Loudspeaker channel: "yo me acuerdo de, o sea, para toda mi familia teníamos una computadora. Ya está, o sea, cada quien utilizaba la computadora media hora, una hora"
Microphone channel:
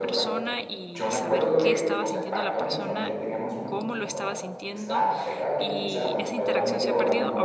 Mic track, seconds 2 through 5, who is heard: both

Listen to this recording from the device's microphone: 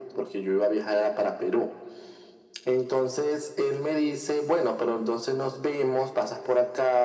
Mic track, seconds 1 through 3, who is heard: echo only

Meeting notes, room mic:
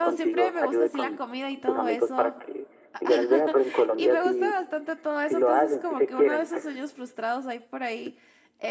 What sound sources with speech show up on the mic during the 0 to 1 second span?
both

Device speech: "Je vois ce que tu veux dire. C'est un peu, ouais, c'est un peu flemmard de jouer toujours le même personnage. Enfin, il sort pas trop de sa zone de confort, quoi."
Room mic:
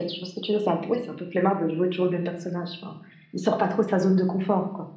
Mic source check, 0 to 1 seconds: echo only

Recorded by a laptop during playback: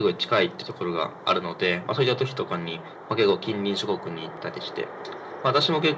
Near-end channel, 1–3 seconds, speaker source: echo only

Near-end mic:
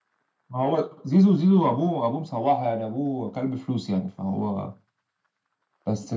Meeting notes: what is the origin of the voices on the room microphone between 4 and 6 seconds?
echo only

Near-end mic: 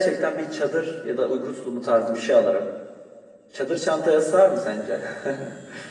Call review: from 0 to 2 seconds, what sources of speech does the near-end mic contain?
echo only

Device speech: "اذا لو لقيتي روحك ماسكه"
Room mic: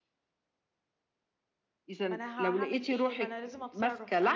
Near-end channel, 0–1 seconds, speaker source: neither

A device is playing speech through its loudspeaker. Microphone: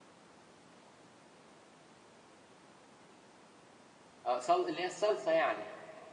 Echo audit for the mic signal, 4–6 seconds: user only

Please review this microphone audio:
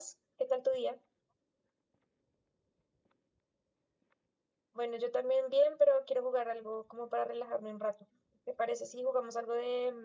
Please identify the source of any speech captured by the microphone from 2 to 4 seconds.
neither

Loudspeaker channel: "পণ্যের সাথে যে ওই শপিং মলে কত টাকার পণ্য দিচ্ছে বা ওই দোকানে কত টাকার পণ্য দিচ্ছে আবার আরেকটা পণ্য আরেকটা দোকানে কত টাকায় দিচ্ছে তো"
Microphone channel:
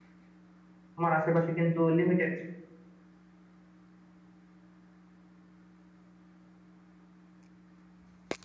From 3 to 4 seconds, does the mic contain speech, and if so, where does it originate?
neither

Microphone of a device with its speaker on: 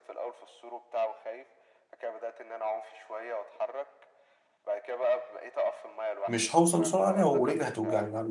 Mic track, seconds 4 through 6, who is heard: echo only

